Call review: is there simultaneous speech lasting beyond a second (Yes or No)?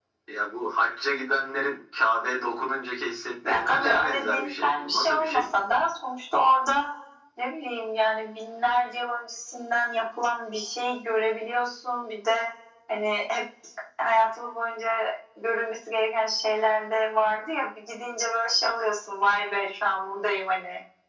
Yes